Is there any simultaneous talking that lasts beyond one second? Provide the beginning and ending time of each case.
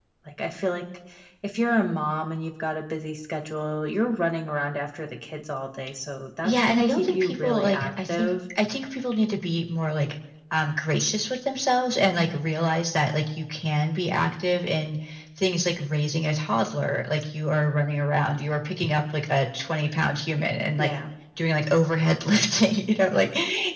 6.4-8.3

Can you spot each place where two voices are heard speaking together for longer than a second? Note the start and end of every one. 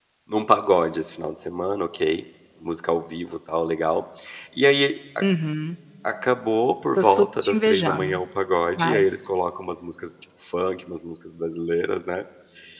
7.0-8.2

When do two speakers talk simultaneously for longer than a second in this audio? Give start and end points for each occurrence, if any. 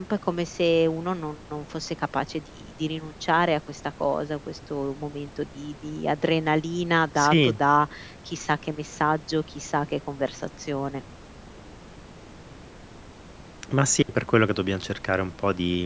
none

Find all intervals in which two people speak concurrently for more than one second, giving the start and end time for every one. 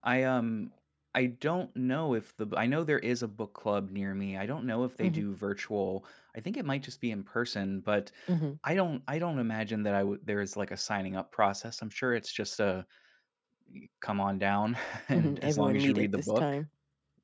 15.1-16.5

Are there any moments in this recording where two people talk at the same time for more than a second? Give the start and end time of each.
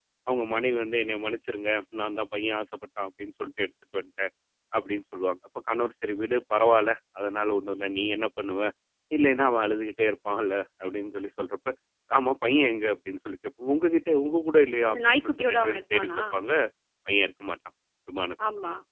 14.8-16.2

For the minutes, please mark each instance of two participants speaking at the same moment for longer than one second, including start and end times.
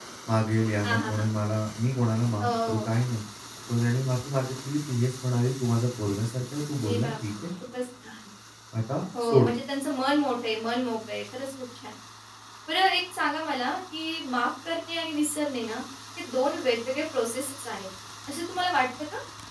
none

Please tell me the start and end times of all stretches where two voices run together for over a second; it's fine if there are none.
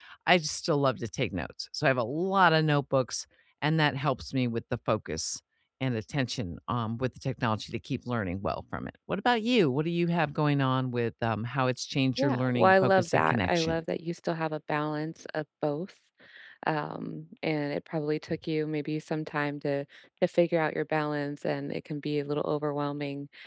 12.2-13.8

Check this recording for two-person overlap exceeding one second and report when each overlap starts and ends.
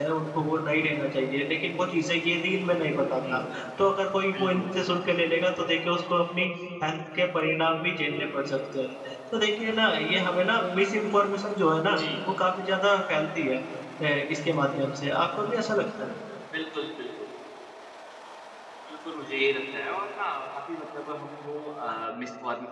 none

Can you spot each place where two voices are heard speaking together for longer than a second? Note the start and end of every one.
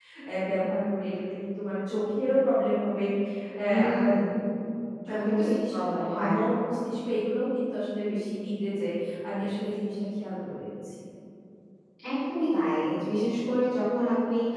5.1-6.3

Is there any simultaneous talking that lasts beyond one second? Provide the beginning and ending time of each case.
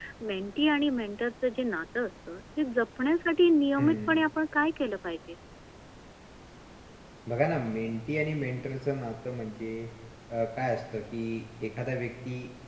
none

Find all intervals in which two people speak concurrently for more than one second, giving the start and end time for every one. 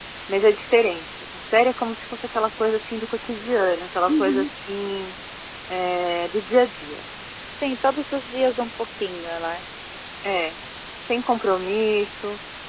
none

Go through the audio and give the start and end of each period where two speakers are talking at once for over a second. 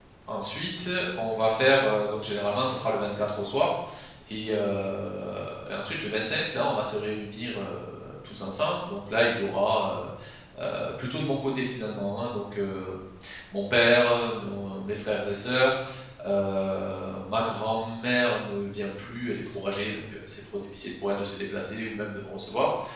none

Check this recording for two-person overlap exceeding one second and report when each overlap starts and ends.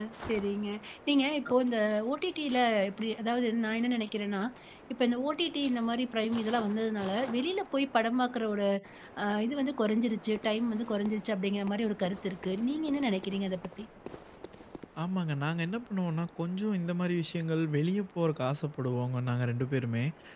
none

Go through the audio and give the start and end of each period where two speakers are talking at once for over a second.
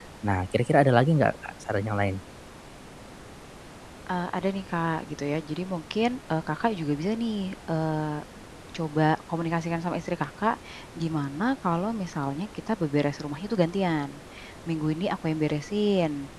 none

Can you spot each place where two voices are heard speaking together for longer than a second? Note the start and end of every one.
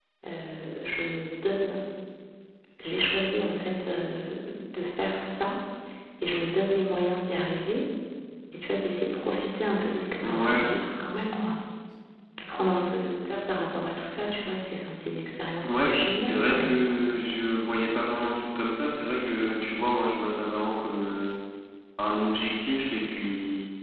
15.6-17.0

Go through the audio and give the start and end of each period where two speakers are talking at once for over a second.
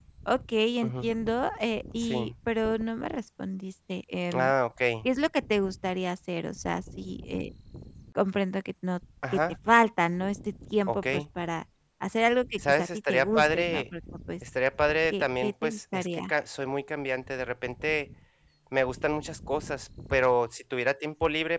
12.6-13.8, 15.1-16.3

